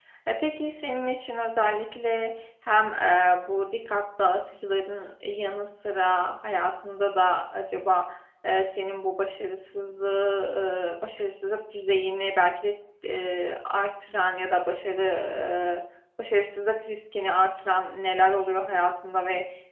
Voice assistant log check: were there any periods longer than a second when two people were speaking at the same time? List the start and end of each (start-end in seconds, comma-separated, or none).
none